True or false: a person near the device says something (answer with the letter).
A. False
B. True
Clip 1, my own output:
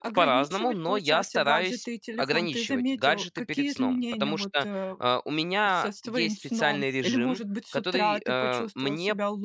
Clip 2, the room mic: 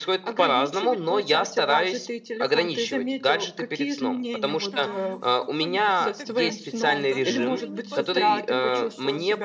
B